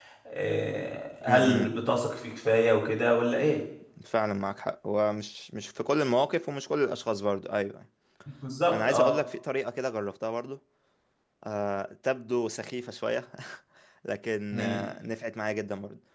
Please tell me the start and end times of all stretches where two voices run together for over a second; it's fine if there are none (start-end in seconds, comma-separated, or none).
none